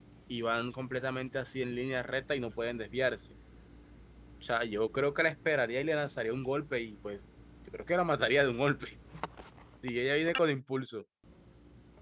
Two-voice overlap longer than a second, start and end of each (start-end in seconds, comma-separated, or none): none